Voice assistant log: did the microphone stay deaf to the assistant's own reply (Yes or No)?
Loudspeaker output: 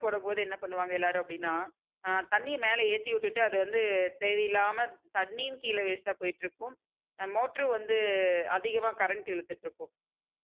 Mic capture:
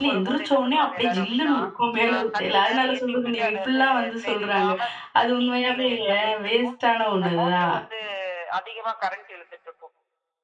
No